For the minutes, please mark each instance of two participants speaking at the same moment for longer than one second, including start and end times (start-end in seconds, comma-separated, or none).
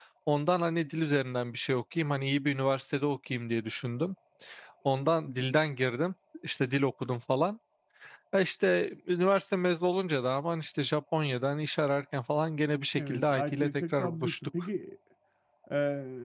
13.0-14.5